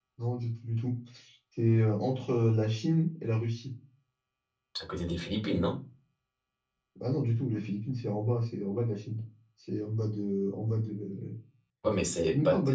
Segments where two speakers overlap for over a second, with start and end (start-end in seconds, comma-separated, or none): none